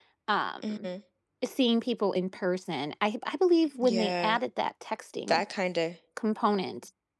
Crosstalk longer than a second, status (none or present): none